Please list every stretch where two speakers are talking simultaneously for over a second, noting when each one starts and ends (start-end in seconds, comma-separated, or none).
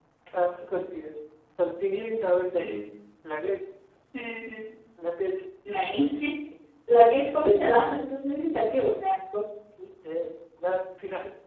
none